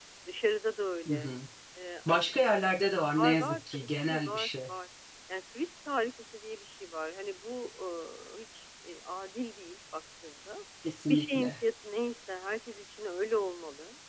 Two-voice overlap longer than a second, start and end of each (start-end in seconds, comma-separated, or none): 3.1-4.5